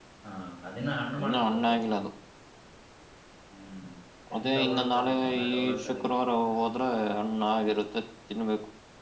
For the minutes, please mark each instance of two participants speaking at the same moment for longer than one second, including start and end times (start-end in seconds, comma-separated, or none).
4.3-6.0